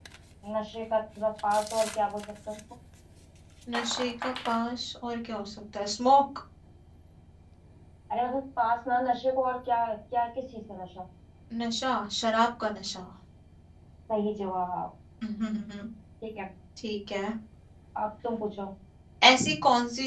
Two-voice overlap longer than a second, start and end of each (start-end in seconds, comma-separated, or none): none